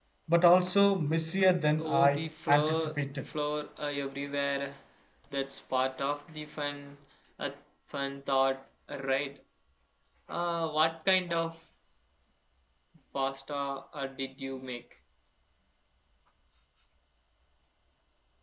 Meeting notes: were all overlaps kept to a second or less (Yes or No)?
No